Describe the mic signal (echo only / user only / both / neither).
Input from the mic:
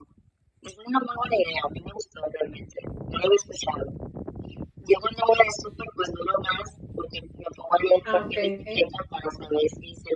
both